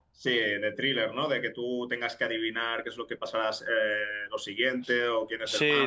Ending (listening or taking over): taking over